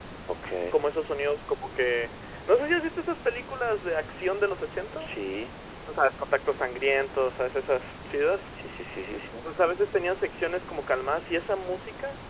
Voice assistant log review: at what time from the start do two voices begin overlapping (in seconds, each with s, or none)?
none